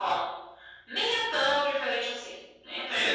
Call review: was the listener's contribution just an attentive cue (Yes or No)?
No